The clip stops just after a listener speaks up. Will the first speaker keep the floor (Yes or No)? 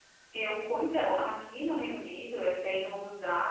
Yes